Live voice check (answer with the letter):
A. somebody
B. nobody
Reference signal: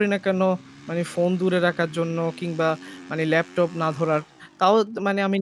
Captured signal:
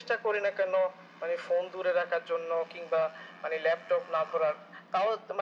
B